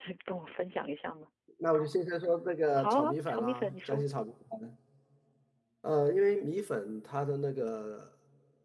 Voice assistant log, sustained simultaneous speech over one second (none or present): present